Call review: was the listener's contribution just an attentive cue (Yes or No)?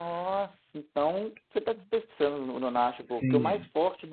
Yes